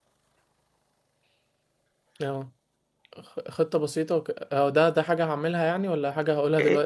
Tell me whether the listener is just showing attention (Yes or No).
No